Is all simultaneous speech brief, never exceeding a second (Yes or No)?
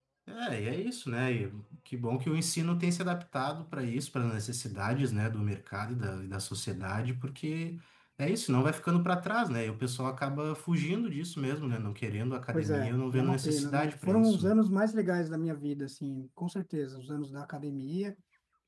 No